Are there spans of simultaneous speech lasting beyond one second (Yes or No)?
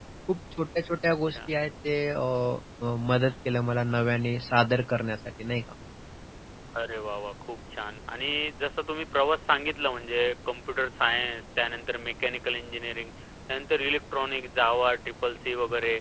No